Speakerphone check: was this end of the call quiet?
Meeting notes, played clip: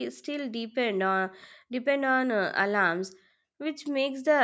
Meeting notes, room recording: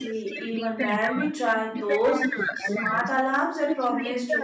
No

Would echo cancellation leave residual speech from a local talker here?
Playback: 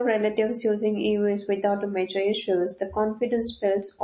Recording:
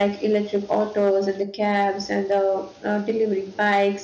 Yes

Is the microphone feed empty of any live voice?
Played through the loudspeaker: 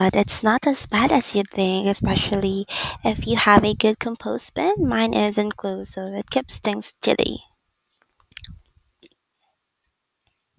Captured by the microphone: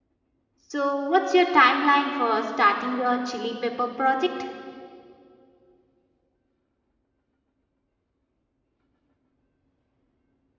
No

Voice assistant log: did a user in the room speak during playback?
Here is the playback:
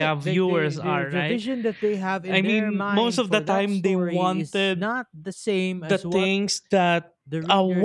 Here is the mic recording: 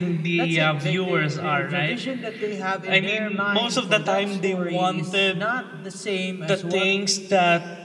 No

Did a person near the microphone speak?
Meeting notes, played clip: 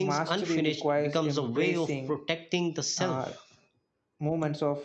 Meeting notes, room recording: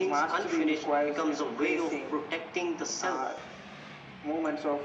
No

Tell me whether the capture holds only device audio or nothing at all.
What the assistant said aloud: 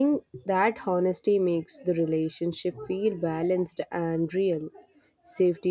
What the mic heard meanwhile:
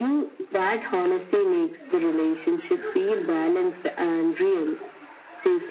Yes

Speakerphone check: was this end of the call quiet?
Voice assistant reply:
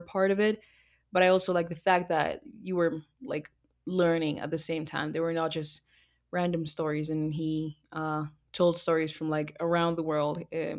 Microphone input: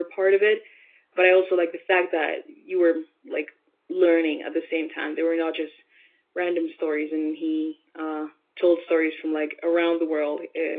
Yes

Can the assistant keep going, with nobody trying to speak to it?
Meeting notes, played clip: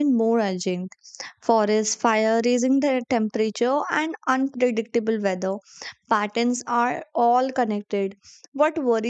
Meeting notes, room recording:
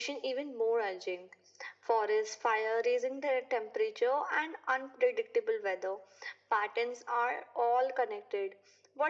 Yes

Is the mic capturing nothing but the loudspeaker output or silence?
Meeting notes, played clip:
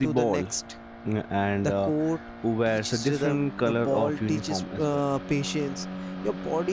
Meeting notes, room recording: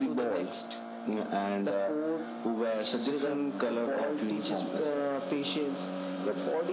Yes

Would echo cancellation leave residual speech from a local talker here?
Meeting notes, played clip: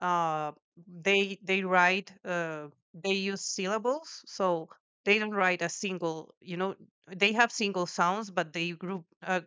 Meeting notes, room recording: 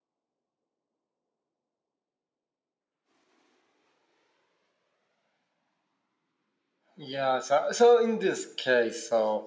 Yes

